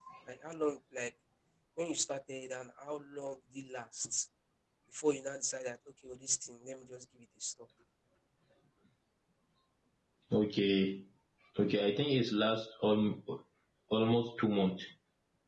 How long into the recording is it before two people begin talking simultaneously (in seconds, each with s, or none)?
none